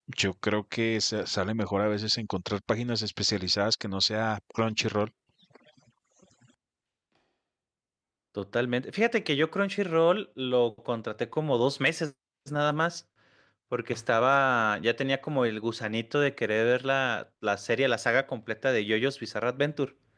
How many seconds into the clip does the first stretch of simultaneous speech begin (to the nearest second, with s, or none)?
none